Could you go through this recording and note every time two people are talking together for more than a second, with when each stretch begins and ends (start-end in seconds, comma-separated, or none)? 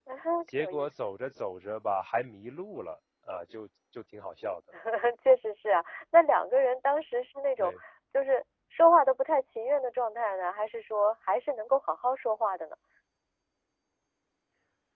none